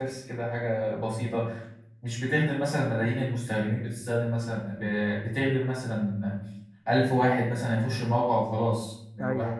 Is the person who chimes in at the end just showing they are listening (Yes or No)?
Yes